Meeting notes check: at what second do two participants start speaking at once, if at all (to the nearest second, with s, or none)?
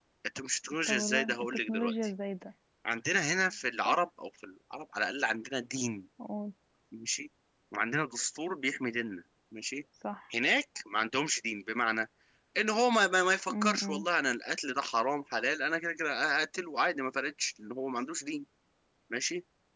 1 s